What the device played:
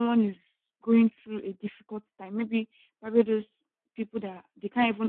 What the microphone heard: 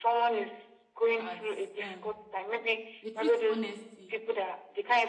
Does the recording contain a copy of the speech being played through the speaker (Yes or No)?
Yes